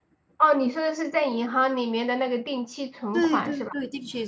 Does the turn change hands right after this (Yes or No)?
Yes